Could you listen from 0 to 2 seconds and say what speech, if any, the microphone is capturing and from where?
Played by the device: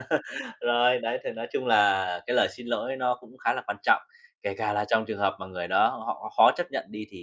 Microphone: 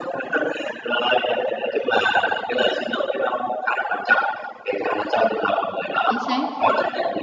echo only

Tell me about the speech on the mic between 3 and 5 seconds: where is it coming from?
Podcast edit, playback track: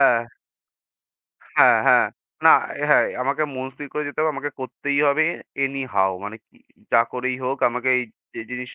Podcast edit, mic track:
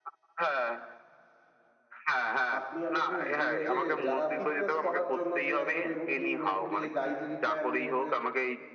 both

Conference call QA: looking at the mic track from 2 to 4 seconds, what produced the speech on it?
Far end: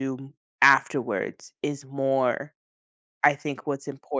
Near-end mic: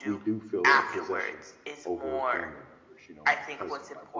both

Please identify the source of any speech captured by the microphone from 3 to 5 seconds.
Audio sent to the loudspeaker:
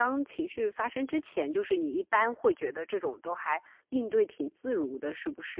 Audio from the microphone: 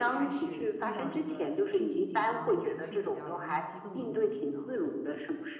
both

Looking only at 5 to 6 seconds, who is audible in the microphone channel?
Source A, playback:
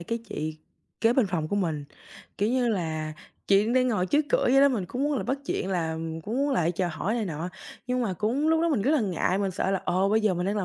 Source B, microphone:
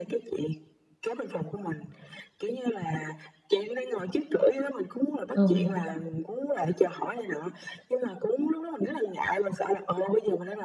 both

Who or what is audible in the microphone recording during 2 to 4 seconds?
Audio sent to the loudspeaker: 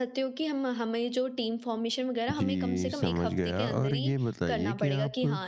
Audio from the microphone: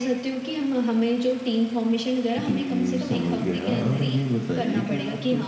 echo only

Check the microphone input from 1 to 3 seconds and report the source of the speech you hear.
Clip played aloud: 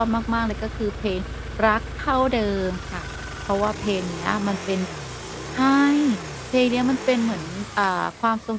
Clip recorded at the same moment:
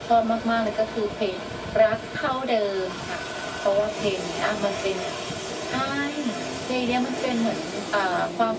echo only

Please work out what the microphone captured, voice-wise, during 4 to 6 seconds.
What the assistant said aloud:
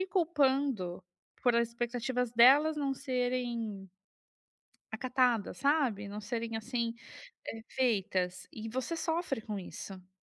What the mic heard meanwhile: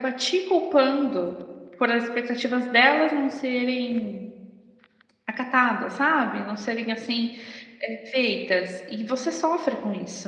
echo only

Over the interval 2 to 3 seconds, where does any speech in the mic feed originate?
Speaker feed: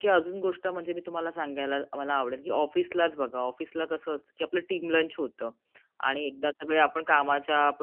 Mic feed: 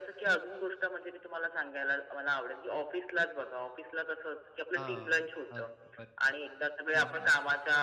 echo only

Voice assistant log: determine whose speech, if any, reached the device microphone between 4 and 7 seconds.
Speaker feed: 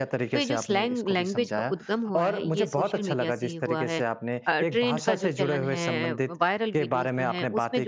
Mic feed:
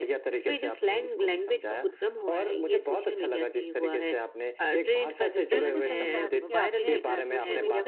both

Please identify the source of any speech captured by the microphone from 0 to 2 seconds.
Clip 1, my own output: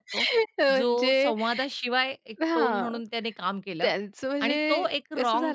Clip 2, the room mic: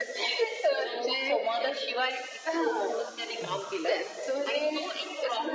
echo only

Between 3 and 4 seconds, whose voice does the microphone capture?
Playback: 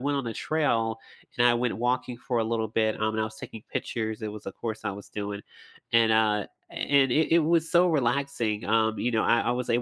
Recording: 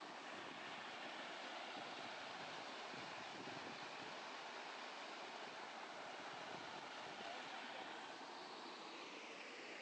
neither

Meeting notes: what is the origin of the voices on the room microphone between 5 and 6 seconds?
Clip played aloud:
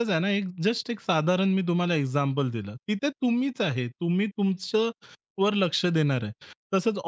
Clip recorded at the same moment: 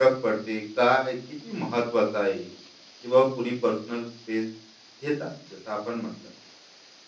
user only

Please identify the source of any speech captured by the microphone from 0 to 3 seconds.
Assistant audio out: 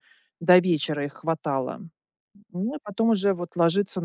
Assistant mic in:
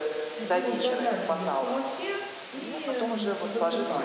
both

